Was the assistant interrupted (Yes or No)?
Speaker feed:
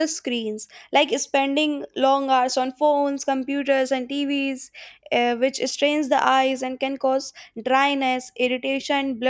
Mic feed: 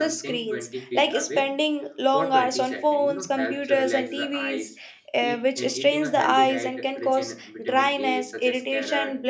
Yes